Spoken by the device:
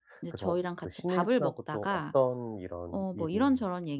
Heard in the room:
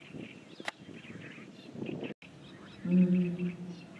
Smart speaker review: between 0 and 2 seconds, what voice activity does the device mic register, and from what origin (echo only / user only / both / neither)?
neither